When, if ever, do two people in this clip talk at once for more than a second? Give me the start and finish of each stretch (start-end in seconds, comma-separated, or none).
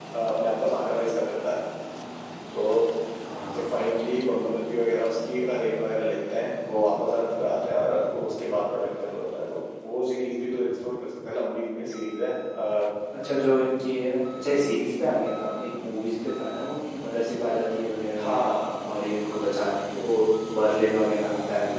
none